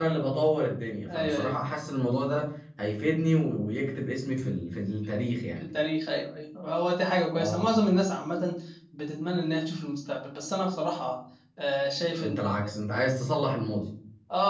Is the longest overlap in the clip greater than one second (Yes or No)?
No